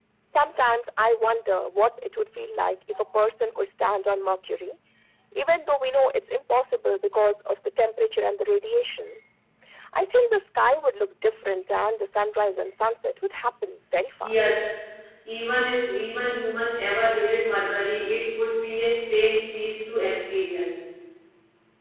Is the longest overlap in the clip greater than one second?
No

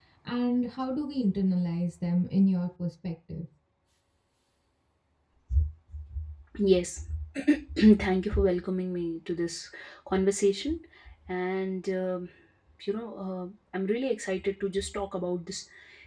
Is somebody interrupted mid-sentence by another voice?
No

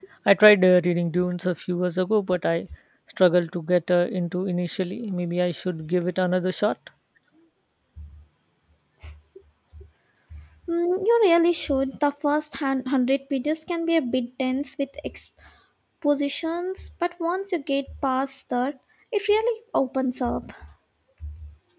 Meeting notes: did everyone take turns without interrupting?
Yes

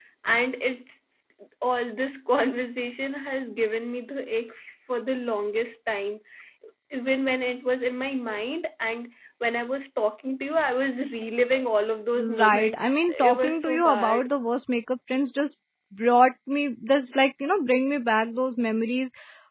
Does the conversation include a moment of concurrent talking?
Yes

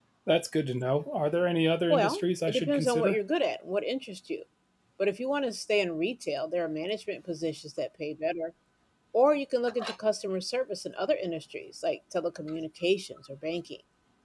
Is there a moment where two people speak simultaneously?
Yes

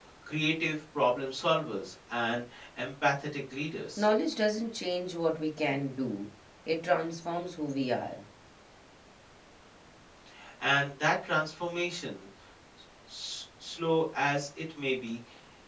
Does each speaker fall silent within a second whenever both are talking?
Yes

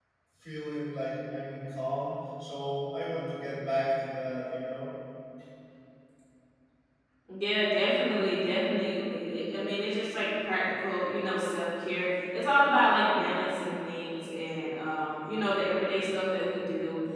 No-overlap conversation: Yes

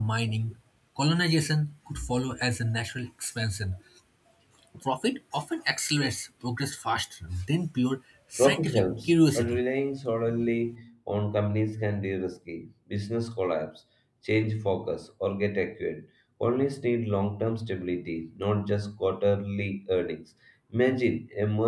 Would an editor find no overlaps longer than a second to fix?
No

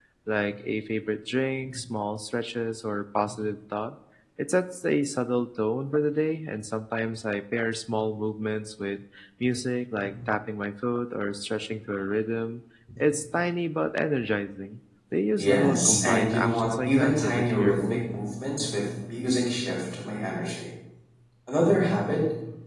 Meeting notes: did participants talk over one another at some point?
Yes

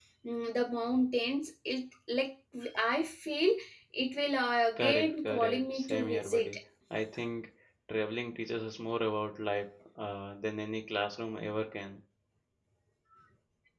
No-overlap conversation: No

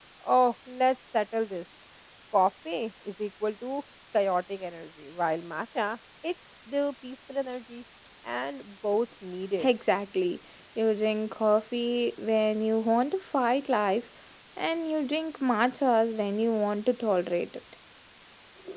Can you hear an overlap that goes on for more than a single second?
No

